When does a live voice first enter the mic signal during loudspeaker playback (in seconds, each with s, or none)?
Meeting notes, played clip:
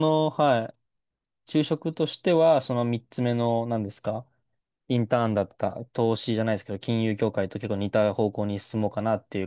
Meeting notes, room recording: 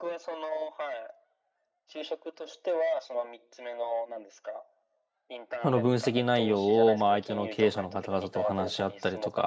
5.6 s